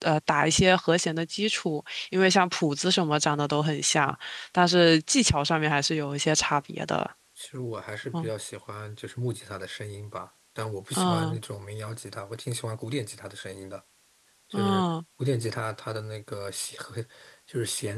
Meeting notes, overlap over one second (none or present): none